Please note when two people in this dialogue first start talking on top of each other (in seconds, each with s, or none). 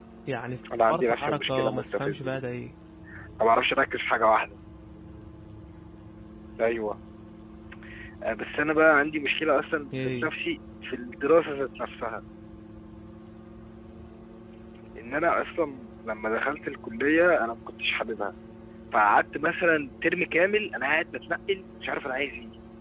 0.9 s